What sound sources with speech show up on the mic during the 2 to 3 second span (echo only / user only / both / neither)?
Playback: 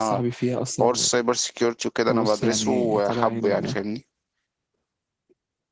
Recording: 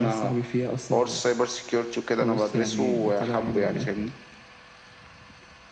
echo only